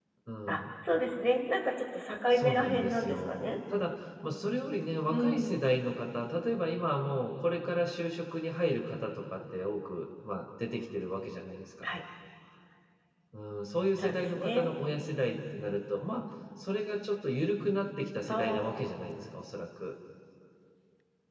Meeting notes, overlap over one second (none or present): present